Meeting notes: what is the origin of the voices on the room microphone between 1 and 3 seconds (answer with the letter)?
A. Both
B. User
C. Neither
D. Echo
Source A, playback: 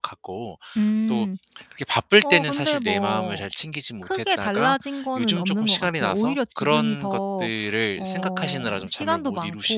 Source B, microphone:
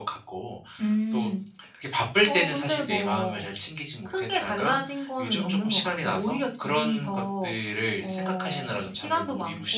D